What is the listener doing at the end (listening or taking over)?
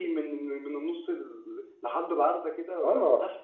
taking over